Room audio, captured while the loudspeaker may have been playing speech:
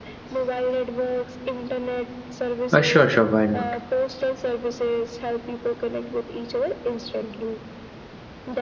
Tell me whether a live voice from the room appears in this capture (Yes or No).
Yes